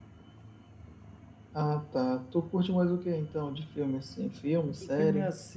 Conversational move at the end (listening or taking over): taking over